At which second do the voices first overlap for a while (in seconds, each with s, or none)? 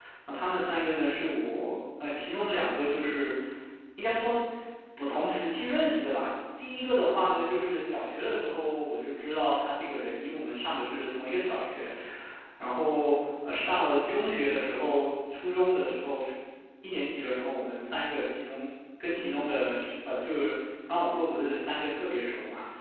none